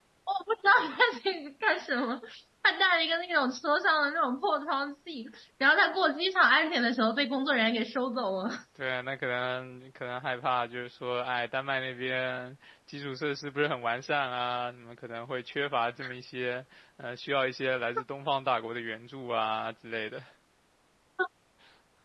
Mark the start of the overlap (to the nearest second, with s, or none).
none